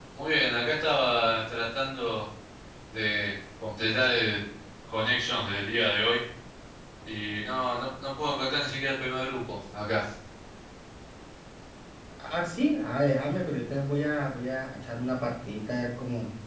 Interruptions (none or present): none